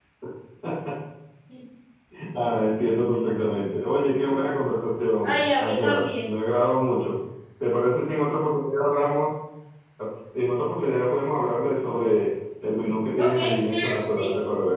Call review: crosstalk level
present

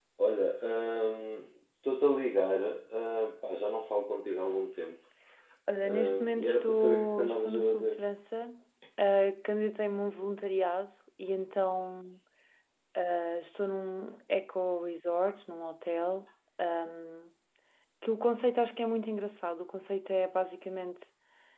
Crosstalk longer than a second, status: present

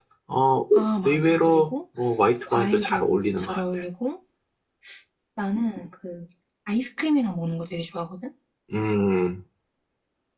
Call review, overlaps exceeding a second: present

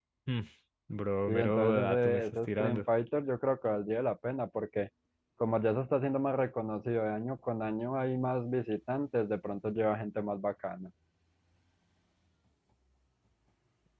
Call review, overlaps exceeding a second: present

